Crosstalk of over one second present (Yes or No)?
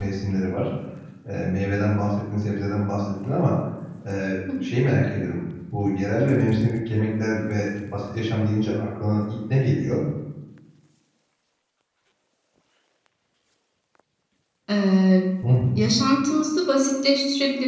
No